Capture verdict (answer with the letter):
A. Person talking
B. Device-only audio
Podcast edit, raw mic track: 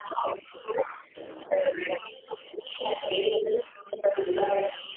B